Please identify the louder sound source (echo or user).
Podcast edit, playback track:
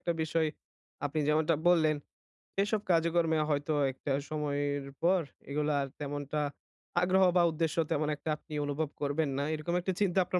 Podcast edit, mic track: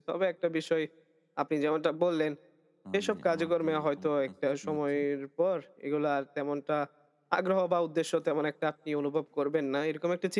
echo